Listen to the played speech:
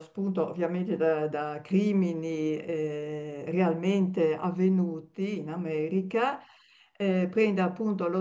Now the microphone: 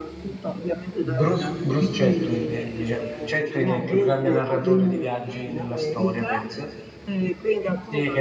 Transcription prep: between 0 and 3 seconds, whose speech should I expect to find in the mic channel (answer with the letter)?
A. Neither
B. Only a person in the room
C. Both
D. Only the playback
C